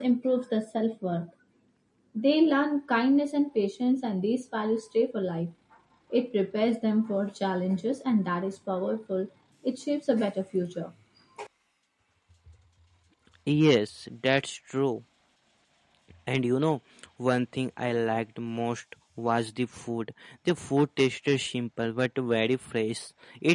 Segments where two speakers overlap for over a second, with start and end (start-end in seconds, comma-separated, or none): none